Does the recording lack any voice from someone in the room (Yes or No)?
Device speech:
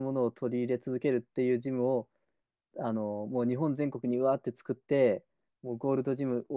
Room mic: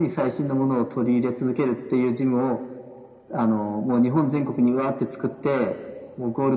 Yes